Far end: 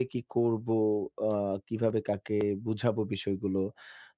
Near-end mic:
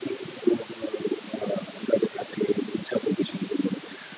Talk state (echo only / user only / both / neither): echo only